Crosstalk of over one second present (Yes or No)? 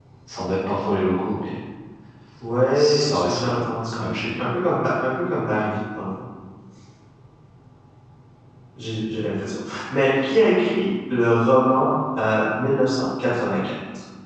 Yes